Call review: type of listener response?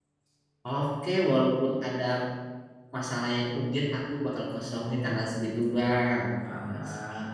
taking over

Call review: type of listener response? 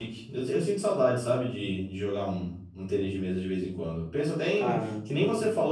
listening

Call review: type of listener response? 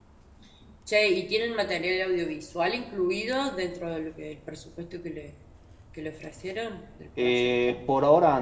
taking over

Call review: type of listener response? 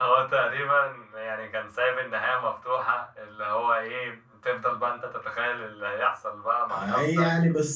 taking over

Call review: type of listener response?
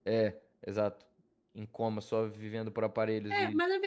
taking over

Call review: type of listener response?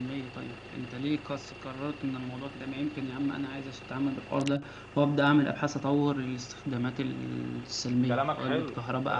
taking over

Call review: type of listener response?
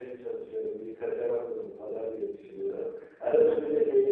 listening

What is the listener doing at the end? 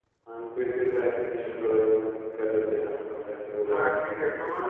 taking over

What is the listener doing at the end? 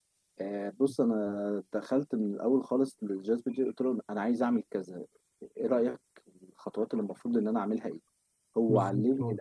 listening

